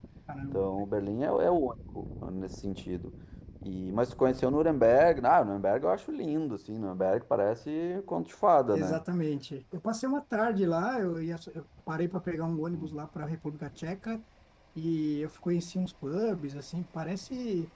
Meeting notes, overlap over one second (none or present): none